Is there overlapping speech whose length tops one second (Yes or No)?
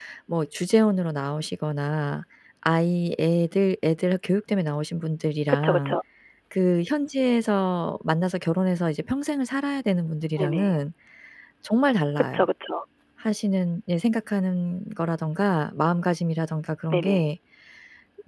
No